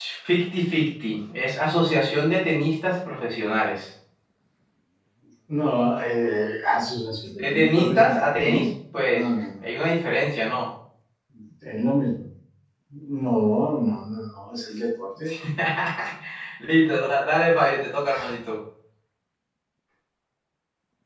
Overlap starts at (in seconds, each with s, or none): 7.4 s